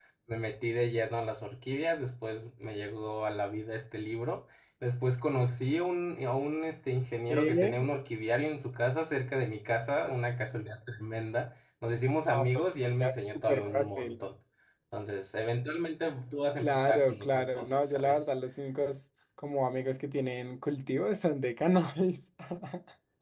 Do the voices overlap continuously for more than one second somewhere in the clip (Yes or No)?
Yes